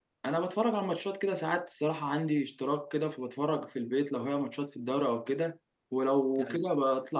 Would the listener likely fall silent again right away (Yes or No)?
Yes